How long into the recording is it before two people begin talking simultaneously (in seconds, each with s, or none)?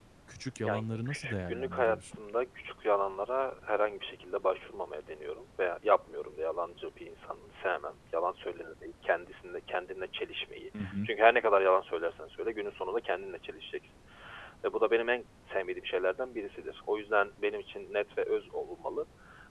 0.6 s